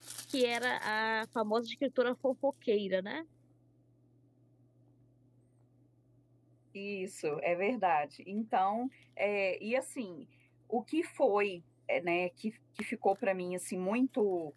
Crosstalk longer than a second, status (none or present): none